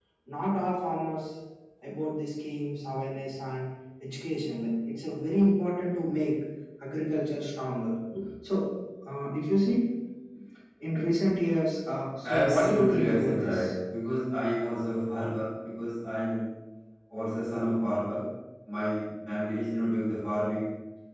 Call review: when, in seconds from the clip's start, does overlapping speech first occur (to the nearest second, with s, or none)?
12 s